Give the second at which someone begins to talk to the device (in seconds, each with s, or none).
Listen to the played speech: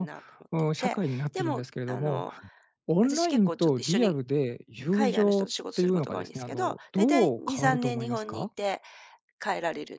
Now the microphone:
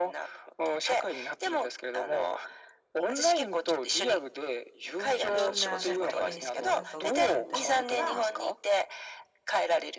5.2 s